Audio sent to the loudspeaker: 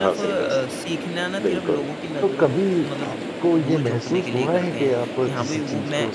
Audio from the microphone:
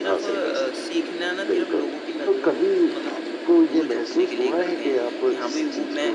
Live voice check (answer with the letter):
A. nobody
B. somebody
A